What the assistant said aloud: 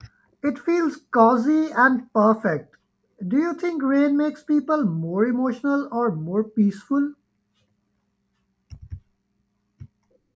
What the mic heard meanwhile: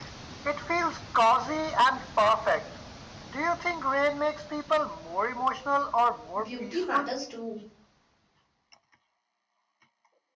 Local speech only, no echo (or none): beauty matters too